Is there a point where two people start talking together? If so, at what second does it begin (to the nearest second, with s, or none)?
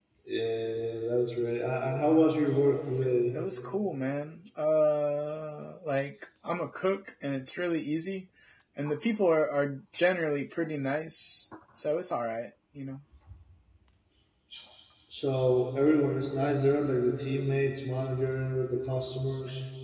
none